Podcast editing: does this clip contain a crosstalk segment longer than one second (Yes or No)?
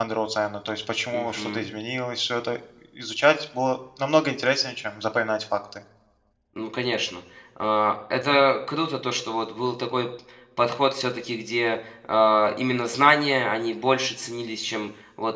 No